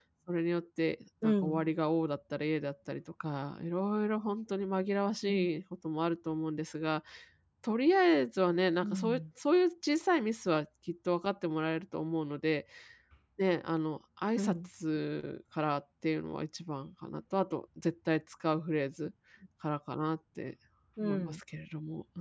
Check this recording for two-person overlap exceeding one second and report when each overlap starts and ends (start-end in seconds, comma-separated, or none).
none